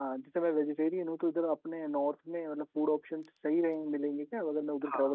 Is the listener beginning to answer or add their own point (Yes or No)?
Yes